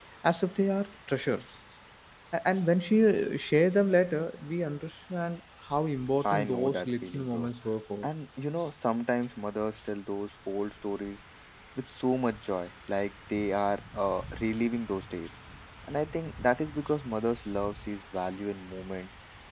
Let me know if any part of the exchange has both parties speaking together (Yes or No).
Yes